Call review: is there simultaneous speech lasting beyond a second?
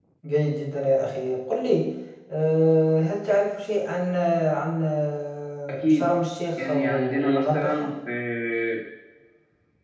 Yes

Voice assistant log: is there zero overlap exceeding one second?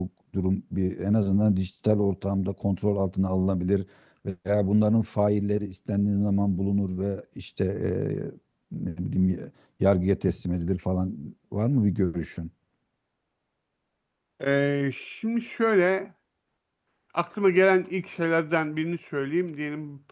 Yes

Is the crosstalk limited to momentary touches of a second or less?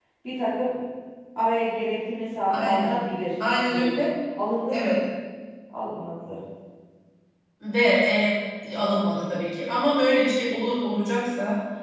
Yes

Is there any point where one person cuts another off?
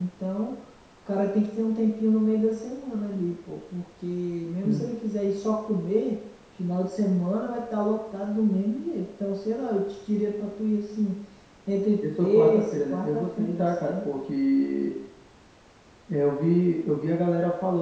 Yes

